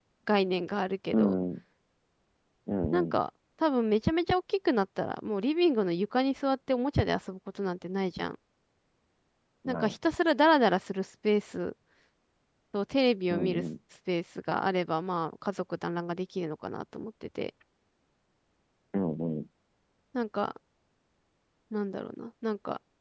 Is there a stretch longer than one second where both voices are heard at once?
No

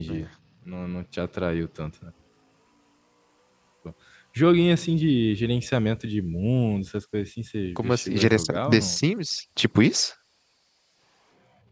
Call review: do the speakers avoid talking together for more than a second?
No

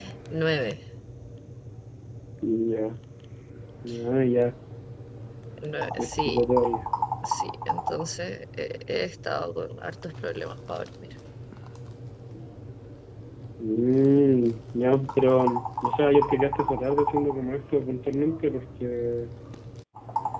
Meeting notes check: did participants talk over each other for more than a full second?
No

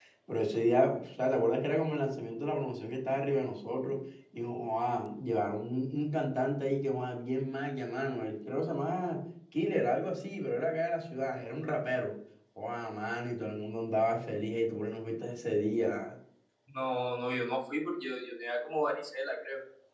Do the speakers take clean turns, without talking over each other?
Yes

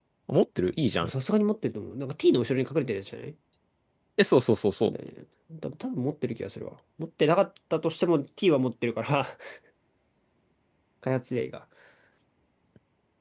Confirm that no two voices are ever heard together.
Yes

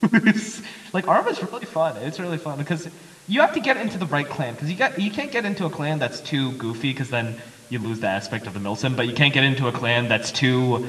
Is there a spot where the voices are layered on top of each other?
No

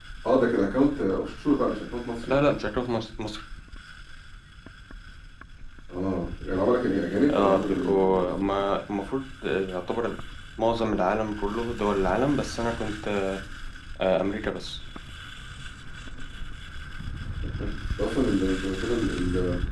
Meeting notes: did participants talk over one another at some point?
Yes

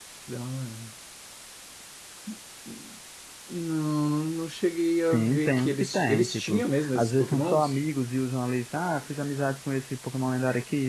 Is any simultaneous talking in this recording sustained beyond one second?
Yes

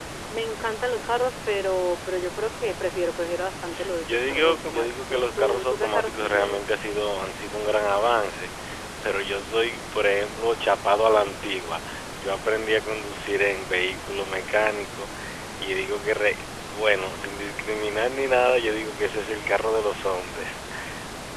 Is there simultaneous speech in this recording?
Yes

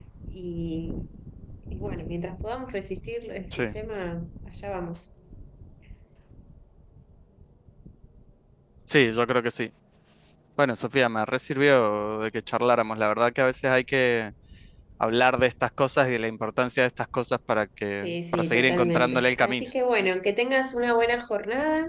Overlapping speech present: Yes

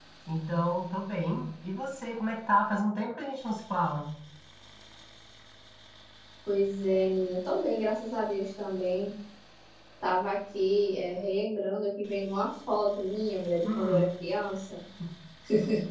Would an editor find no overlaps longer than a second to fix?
Yes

